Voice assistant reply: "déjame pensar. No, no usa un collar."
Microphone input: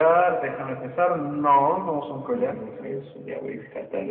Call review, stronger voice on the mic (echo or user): echo